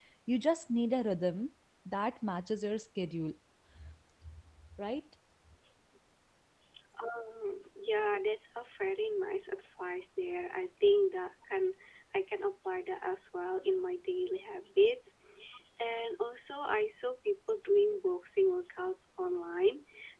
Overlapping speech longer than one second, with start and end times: none

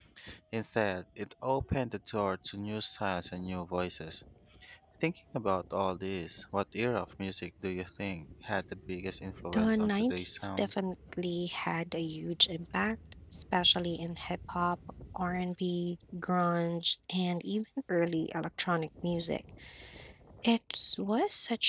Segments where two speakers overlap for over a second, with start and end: 9.5-10.7

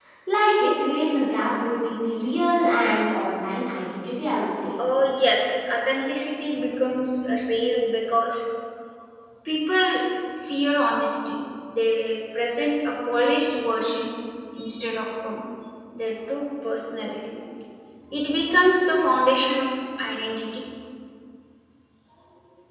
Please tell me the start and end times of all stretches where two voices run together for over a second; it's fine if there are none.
none

